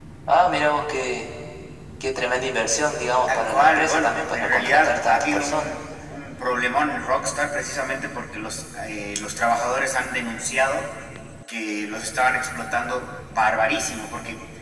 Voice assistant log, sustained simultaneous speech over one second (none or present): present